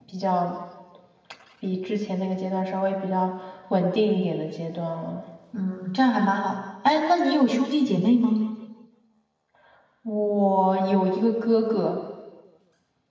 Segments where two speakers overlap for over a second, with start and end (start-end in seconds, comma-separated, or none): none